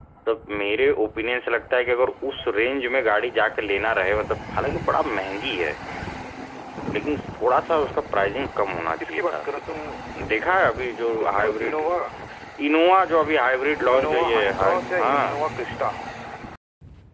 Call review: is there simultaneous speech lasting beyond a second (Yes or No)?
Yes